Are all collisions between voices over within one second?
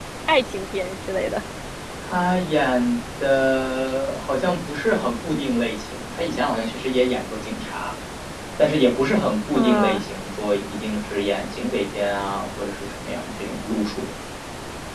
Yes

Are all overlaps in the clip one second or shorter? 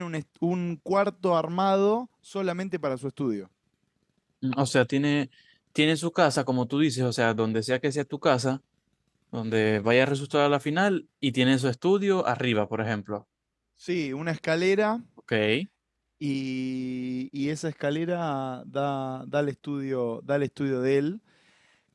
Yes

